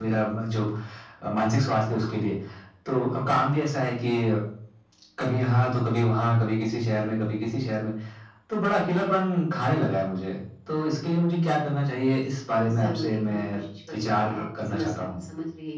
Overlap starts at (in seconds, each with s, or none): 12.6 s